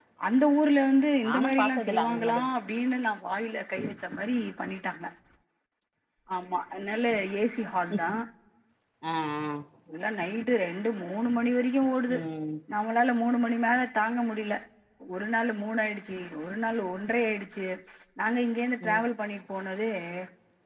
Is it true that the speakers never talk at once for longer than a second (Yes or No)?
No